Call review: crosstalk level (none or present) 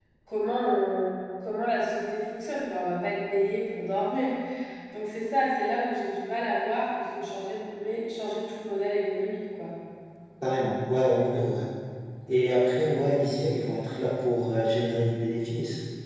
none